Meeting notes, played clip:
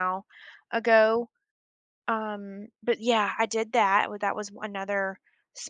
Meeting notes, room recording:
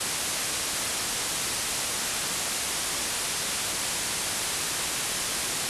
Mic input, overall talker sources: neither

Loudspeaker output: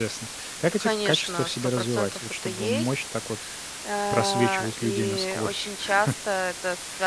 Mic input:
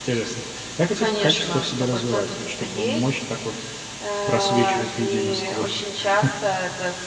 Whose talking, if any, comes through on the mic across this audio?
echo only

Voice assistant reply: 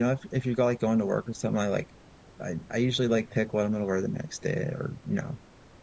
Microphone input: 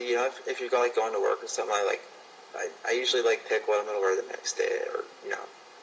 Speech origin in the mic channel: echo only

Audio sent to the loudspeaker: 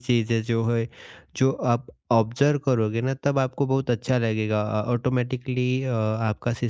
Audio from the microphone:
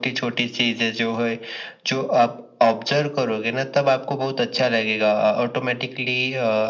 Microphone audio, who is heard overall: echo only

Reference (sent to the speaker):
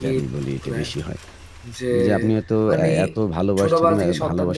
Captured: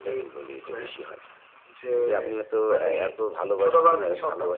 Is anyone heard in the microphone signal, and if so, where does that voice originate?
echo only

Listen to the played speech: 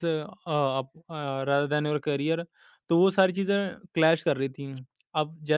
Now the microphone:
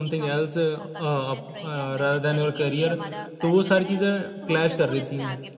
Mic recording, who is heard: both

